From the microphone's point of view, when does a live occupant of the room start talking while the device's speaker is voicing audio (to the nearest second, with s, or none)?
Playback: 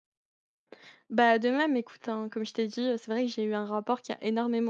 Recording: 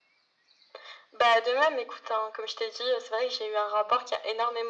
none